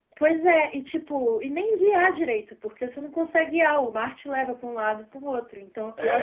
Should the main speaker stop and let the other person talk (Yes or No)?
Yes